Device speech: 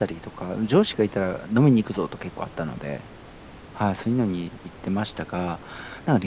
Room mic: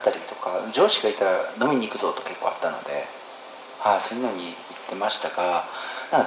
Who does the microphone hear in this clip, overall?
echo only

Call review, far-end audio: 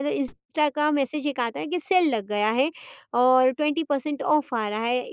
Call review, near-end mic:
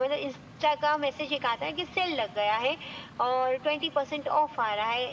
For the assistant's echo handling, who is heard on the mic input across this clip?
echo only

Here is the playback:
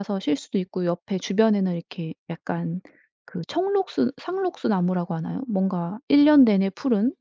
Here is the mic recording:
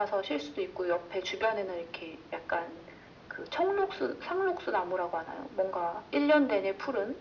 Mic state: echo only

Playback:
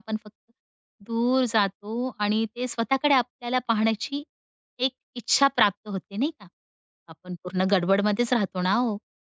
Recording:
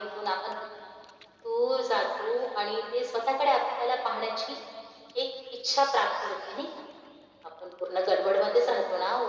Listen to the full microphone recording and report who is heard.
echo only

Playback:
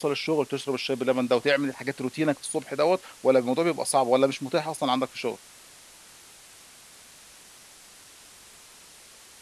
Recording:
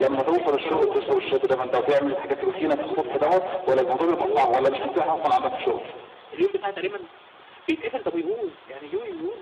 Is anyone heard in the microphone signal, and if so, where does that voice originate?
both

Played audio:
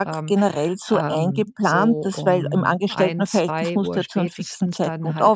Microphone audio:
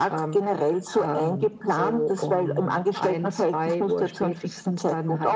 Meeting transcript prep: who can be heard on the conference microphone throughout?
echo only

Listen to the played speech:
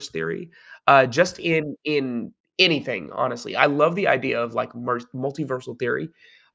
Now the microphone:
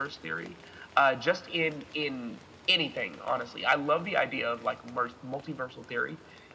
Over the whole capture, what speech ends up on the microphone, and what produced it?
echo only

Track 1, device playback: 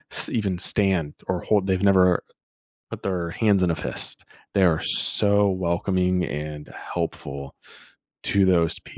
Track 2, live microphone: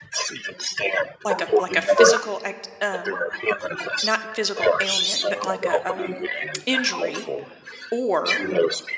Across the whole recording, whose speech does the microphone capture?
both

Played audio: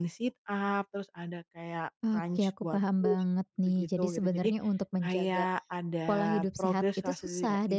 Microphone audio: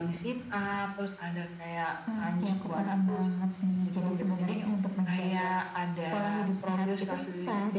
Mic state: echo only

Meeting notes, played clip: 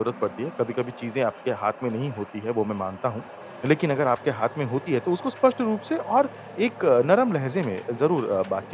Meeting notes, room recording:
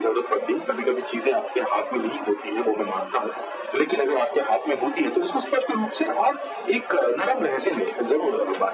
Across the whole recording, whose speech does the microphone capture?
echo only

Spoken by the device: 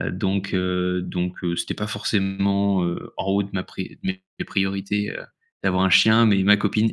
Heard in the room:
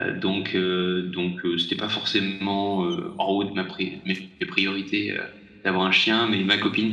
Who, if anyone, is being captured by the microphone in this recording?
echo only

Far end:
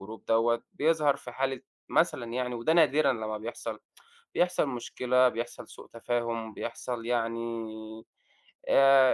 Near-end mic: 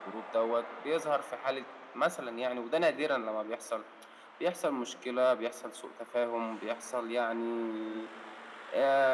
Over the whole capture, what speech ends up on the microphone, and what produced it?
echo only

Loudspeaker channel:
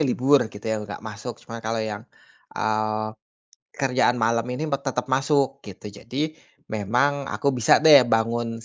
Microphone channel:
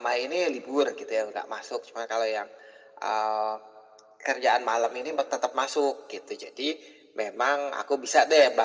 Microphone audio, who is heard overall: echo only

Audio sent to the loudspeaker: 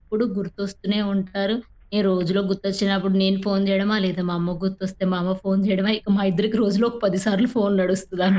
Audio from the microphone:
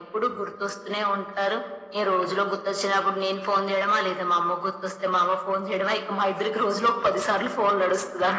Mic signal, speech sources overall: echo only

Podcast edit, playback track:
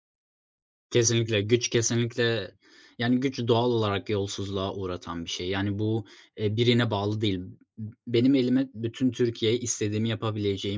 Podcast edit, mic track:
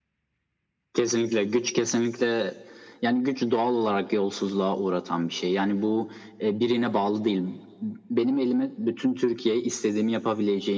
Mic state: echo only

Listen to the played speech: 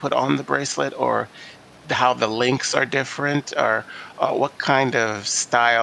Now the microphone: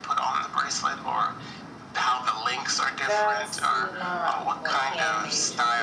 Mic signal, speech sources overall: both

